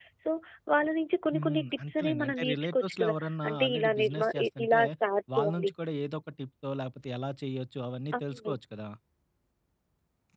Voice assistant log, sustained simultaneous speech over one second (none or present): present